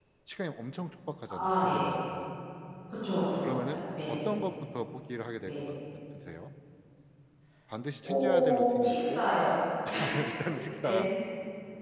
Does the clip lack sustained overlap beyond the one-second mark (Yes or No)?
No